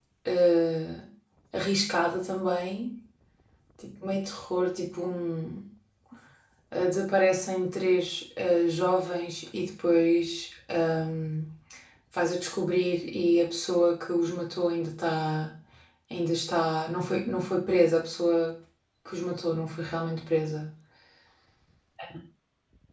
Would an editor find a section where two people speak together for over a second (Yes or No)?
No